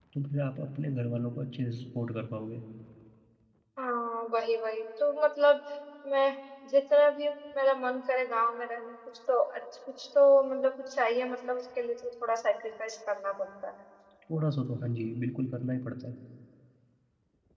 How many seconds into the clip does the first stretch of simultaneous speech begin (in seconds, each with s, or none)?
none